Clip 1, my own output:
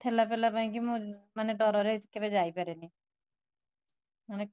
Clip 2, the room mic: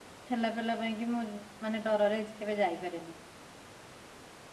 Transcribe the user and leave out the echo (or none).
none